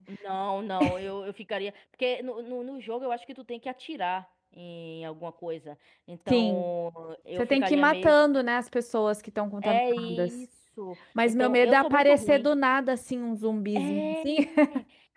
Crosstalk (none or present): present